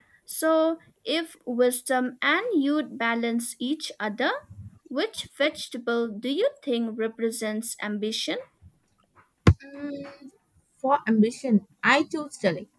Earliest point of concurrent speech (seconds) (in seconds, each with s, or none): none